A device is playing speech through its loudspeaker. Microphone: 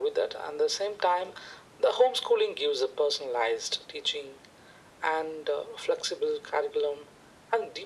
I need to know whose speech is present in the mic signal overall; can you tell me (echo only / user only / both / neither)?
echo only